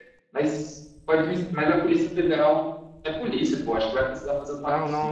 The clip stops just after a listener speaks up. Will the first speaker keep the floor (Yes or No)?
No